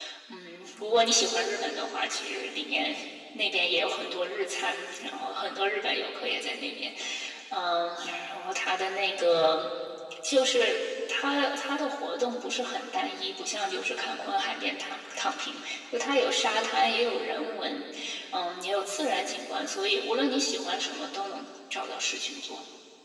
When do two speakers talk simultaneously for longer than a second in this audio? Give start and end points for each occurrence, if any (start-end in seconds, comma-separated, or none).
none